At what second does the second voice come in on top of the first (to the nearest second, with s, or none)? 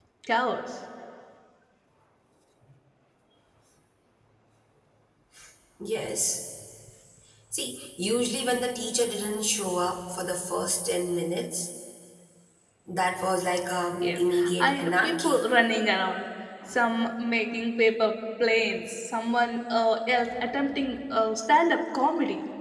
14 s